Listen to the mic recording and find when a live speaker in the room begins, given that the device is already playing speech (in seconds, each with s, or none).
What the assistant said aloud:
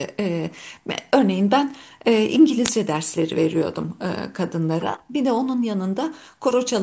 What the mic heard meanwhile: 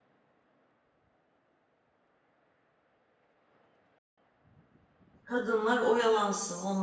5.2 s